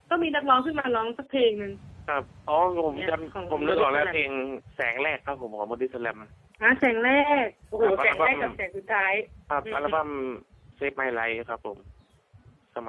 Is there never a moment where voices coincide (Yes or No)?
No